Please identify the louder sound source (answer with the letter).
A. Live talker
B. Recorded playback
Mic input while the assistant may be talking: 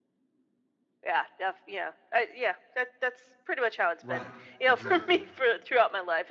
B